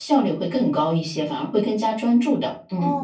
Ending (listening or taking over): taking over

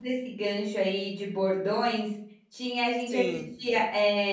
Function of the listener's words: listening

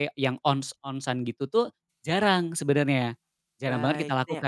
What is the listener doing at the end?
taking over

